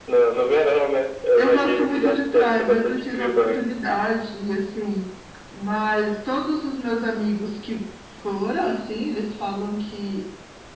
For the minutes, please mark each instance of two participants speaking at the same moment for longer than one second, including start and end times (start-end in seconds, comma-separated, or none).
1.4-3.6